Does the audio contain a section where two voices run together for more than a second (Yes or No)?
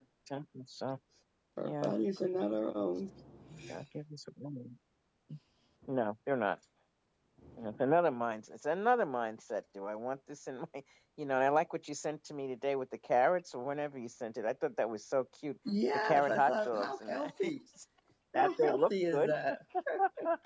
Yes